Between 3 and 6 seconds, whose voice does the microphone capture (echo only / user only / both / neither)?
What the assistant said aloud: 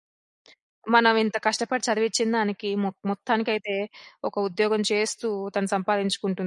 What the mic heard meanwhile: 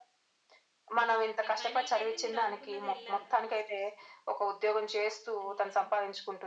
both